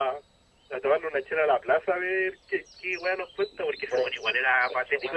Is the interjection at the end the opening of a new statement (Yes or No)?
Yes